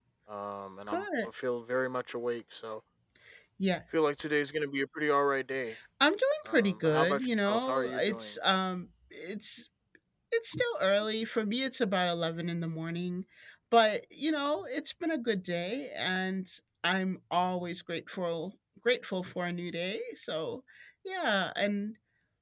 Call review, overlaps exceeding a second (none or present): present